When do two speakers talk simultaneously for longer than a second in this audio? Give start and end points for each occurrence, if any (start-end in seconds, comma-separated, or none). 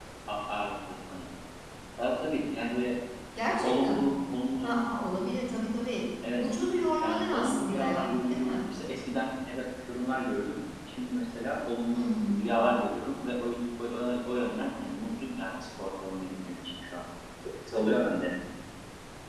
7.0-8.5